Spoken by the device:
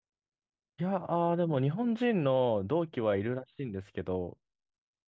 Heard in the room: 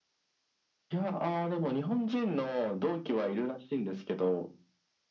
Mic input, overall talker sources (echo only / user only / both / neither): echo only